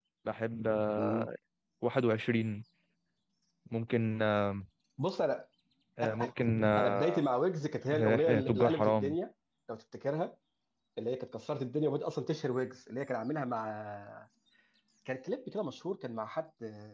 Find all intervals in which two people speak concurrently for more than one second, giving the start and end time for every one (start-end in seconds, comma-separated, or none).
7.9-9.2